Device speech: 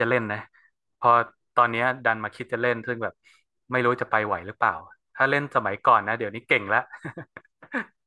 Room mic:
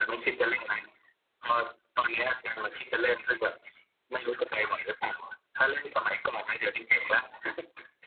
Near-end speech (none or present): none